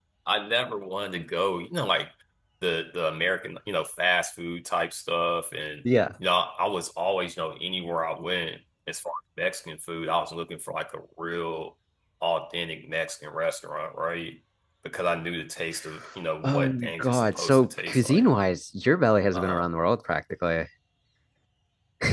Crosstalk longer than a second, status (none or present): present